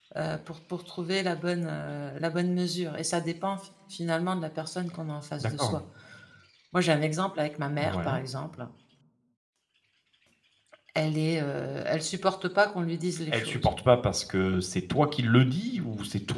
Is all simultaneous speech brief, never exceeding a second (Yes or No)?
Yes